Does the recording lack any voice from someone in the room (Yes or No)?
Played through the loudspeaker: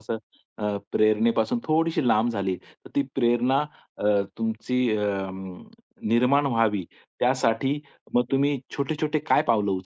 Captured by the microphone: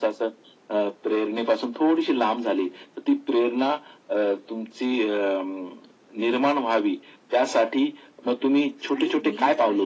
No